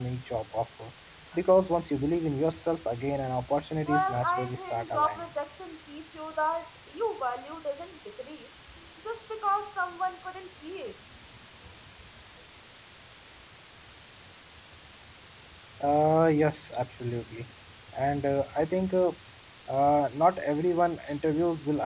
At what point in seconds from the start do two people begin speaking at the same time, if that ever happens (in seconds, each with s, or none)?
3.8 s